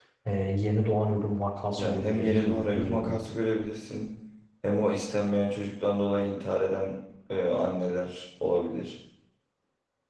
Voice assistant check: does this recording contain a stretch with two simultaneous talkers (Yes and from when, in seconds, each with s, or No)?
Yes, from 1.8 s